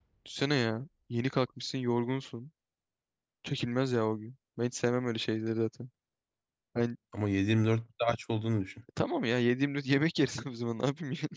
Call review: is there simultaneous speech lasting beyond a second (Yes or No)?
No